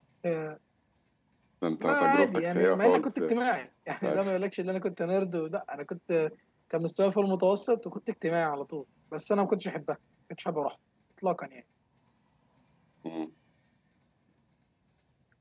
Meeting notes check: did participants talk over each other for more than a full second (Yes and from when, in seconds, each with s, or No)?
Yes, from 1.8 s